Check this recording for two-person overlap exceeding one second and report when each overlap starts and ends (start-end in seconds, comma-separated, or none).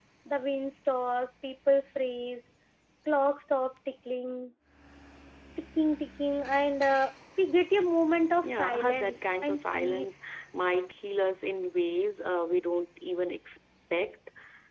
8.4-10.1